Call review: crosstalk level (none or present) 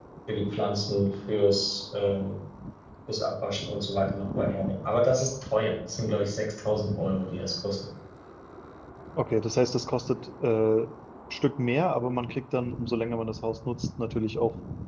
none